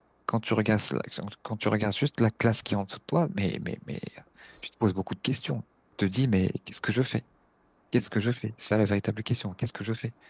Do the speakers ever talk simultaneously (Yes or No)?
No